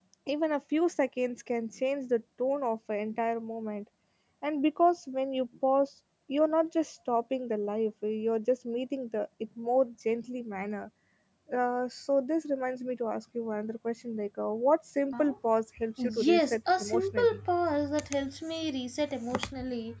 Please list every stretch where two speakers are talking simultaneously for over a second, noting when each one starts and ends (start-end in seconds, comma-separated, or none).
16.0-17.4